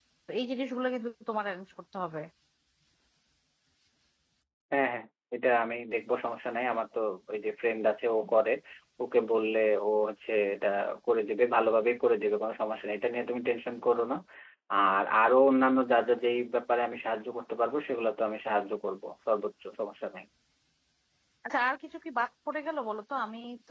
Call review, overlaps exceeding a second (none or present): none